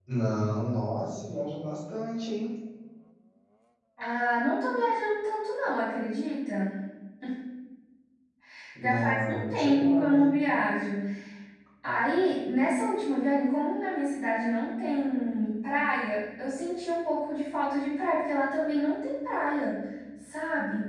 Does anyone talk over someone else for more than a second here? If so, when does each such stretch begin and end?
8.8-10.4

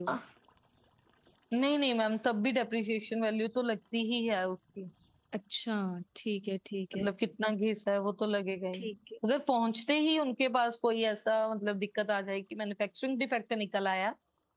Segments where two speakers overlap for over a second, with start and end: none

